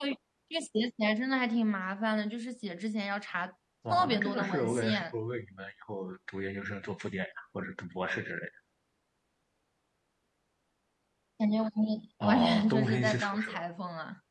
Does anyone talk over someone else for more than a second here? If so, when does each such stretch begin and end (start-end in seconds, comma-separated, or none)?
3.9-5.1, 12.2-13.6